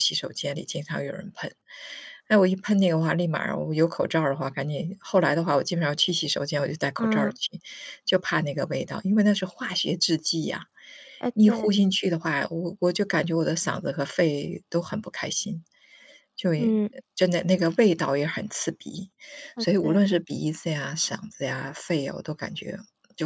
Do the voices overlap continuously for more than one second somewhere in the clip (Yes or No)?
No